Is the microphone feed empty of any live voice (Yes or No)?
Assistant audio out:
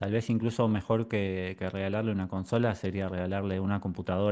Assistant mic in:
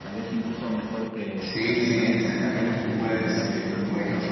No